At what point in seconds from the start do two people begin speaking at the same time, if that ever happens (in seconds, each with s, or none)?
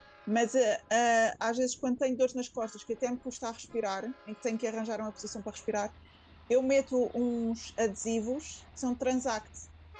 none